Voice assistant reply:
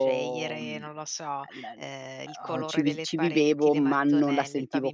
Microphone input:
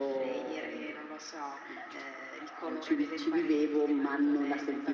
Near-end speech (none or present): none